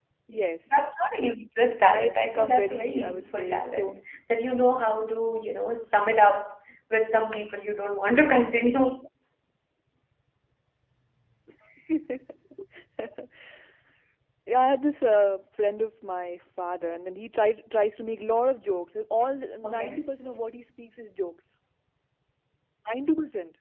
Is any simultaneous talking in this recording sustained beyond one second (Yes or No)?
Yes